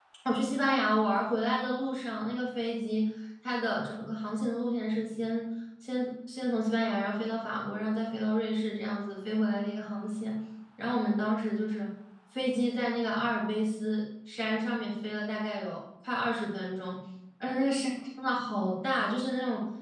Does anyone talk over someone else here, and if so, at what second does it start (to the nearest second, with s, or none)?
none